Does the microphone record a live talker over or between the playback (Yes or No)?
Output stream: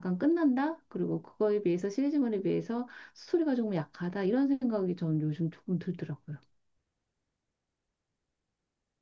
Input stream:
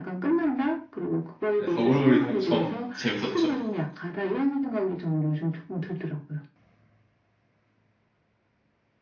Yes